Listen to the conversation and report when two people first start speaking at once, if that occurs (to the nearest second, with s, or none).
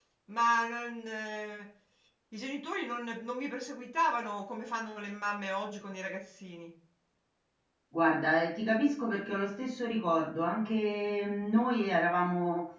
none